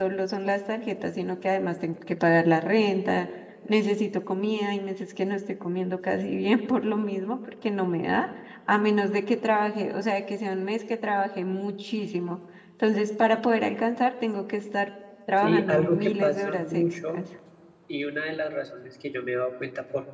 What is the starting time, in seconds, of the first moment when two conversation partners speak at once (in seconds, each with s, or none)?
15.4 s